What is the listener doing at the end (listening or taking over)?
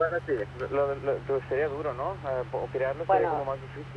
taking over